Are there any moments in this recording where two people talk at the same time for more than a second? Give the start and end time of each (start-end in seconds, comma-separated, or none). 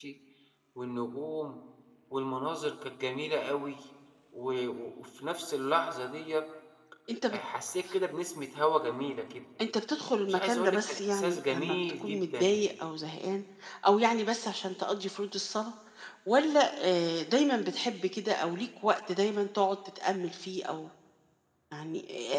10.3-12.6